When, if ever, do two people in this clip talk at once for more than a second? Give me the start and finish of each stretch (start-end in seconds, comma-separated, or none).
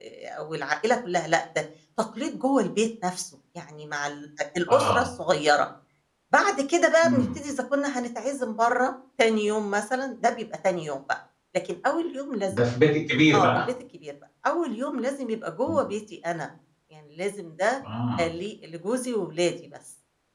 none